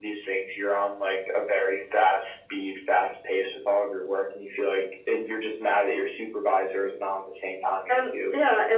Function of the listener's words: taking over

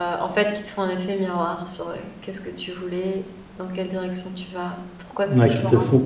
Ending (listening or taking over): taking over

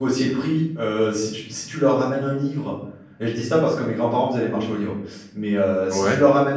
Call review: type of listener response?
listening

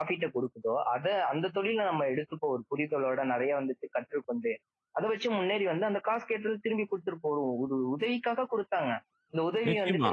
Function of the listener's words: taking over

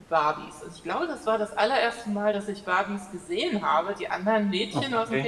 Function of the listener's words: listening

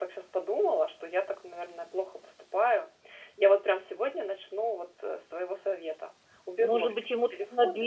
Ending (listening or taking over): taking over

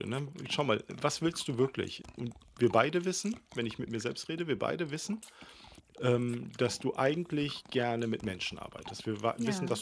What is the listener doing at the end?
listening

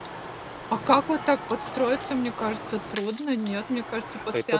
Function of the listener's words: taking over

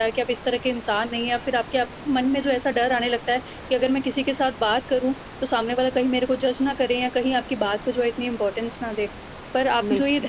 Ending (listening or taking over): listening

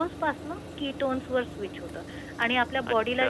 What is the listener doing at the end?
listening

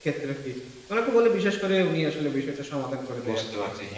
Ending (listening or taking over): taking over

